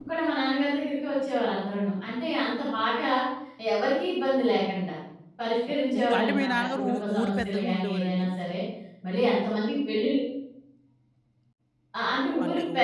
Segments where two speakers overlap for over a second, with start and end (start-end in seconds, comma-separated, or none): 5.7-8.3